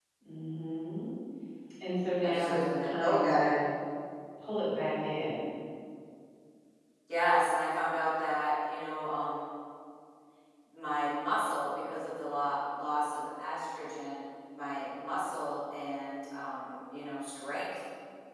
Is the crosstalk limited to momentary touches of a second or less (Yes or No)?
No